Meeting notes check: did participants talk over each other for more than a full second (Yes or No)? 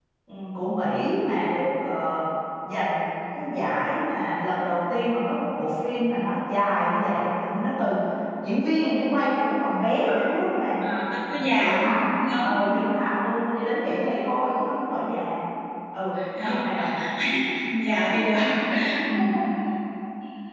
Yes